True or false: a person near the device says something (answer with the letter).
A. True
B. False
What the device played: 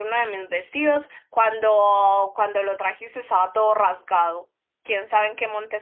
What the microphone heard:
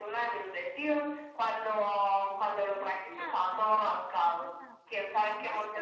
A